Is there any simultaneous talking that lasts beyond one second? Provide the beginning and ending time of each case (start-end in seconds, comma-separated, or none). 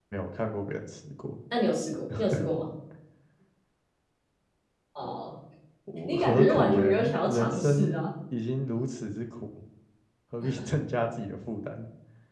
6.1-8.0